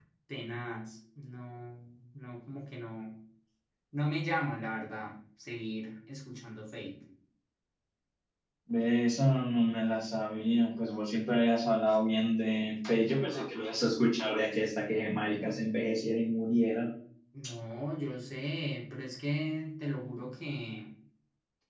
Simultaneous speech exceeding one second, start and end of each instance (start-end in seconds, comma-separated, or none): none